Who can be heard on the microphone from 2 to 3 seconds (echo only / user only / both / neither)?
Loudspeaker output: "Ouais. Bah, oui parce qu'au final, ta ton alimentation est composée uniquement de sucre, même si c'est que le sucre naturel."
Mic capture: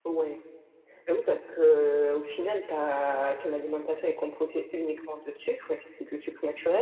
echo only